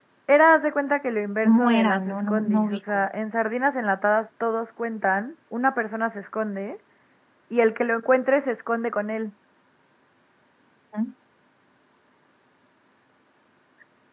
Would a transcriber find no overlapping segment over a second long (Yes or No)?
No